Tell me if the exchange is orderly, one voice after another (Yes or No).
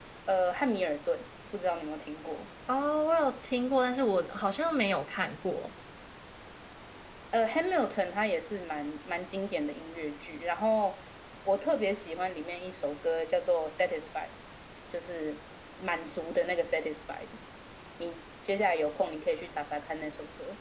Yes